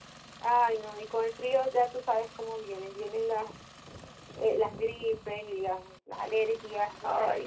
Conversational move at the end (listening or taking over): taking over